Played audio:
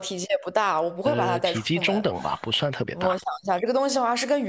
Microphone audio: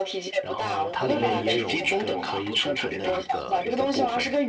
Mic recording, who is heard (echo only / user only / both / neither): both